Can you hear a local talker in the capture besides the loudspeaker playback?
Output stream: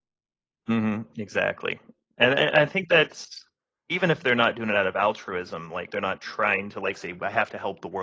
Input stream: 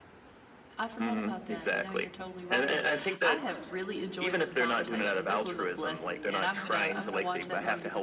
Yes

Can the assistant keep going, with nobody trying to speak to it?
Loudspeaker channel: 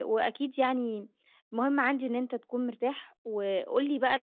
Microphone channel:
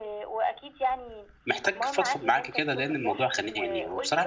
No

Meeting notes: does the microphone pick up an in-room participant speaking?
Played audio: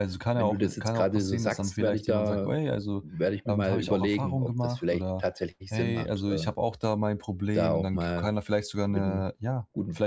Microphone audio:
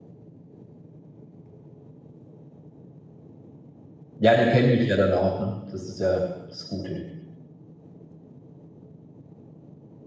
Yes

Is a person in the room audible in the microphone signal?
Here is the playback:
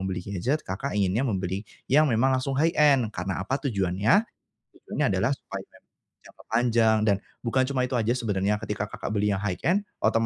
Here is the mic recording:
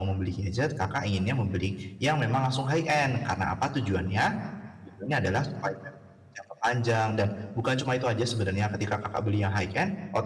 Yes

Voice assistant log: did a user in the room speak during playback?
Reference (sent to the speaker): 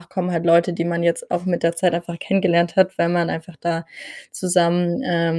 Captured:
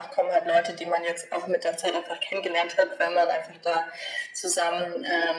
No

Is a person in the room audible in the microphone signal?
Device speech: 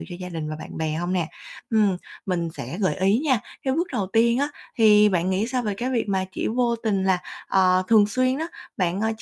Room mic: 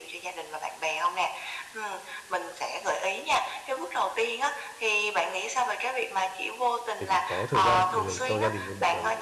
Yes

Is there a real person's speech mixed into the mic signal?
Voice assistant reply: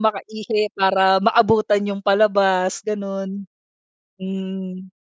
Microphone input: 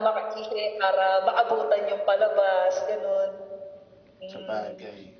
Yes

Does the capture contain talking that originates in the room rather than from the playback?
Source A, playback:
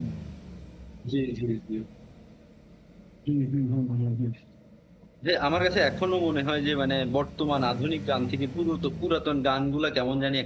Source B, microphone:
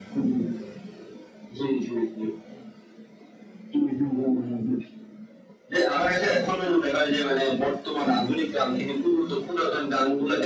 No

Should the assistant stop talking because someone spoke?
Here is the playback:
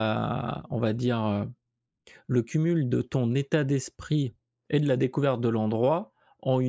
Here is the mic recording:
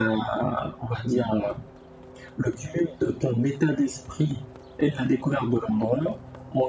No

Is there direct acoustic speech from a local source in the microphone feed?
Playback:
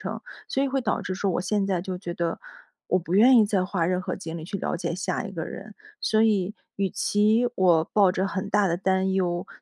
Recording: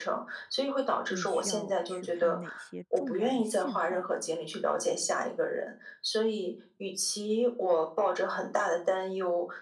Yes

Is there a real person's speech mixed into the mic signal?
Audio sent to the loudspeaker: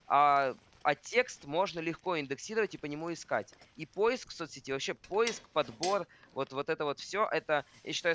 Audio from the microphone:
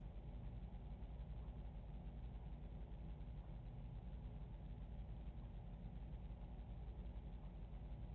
No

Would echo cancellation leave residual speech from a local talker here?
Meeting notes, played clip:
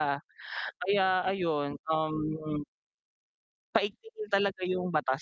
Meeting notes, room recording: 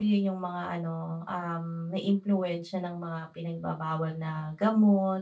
Yes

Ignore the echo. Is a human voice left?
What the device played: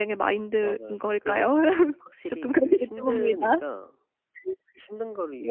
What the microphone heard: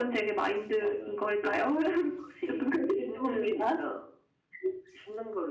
No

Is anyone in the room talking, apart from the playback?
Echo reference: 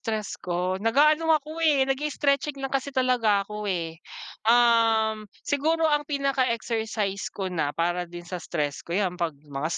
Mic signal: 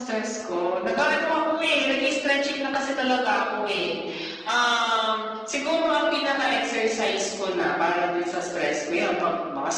No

